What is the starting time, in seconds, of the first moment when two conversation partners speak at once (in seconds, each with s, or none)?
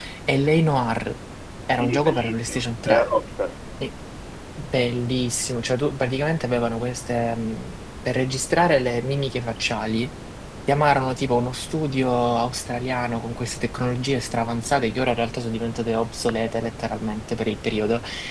1.7 s